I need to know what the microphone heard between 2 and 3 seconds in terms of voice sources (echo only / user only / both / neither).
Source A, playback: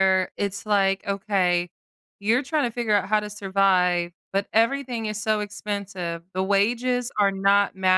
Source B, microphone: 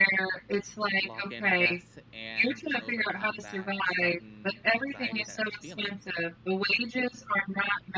both